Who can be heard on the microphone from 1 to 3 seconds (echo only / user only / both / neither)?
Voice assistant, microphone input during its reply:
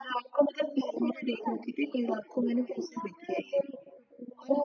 echo only